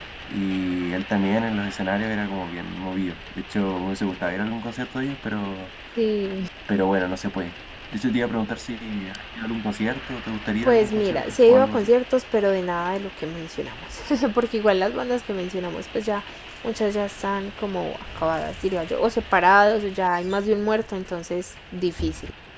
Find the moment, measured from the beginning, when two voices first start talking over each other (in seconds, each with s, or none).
10.6 s